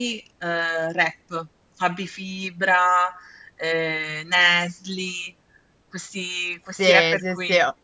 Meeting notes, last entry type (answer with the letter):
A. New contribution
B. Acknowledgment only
A